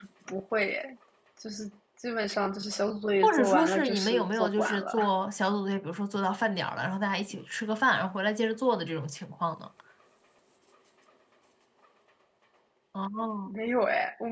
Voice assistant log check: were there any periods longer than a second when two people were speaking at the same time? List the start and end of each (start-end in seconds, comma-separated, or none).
3.2-5.0